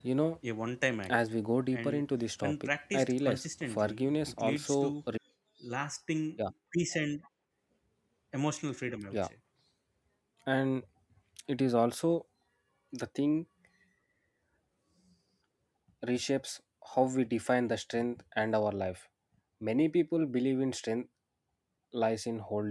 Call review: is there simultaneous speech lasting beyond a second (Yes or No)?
Yes